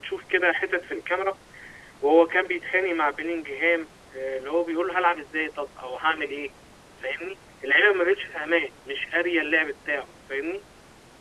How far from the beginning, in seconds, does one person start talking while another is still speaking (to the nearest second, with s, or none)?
none